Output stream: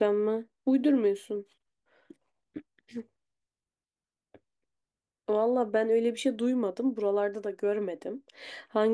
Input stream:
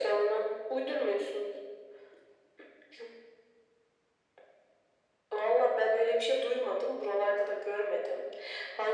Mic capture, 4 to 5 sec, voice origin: neither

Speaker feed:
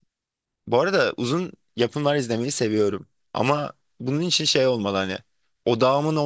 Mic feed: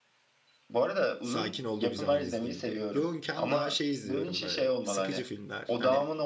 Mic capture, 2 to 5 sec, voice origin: both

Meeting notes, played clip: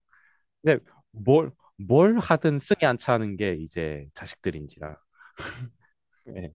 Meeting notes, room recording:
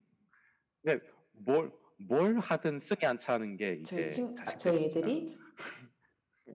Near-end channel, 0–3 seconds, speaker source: echo only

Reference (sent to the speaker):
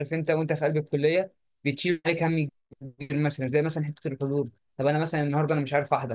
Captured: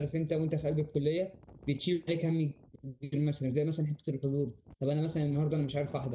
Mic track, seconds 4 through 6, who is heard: echo only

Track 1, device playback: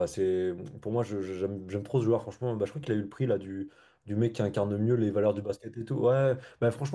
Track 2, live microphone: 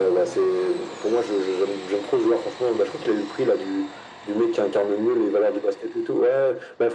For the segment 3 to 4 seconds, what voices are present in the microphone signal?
echo only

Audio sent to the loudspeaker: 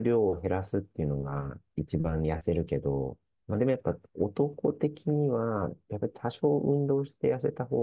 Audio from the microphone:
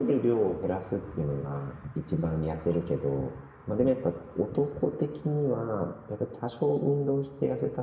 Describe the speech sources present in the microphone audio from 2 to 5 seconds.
echo only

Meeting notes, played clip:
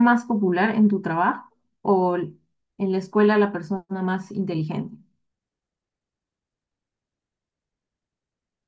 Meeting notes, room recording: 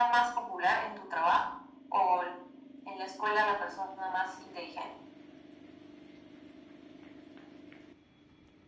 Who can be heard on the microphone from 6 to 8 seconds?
neither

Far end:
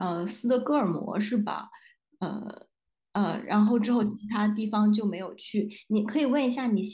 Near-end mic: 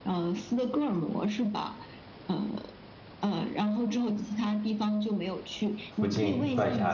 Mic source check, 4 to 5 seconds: echo only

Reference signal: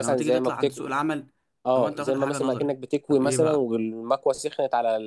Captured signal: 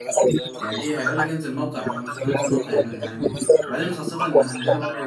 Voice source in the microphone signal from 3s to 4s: both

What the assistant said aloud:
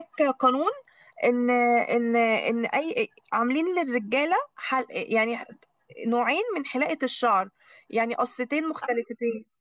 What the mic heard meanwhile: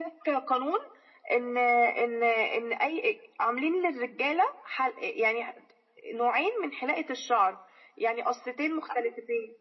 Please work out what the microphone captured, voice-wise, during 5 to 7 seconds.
echo only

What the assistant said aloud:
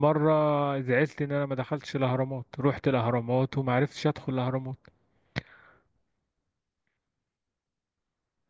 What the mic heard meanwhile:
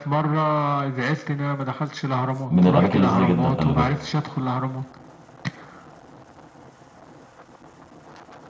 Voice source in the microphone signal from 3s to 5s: both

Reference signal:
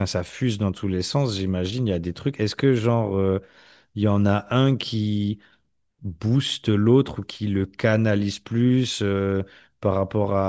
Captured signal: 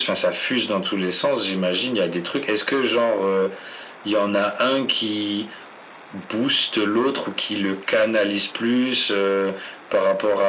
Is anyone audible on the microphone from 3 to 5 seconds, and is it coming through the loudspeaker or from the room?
echo only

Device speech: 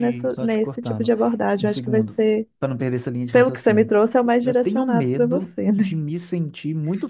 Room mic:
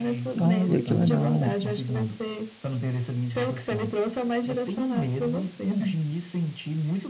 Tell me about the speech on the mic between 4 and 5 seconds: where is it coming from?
echo only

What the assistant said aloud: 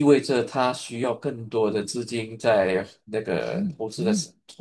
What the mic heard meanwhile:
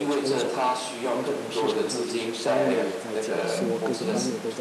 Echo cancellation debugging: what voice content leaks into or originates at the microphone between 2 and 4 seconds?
both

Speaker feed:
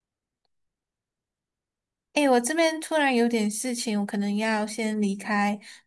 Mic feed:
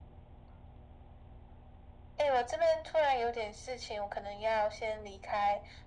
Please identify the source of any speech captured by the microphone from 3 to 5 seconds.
echo only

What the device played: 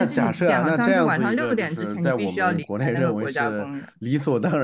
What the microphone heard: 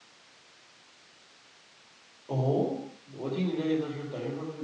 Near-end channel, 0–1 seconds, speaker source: neither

